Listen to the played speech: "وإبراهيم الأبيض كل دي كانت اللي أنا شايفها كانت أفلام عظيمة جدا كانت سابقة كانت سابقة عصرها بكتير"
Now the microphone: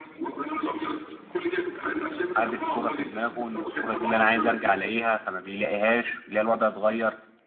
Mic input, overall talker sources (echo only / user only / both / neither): both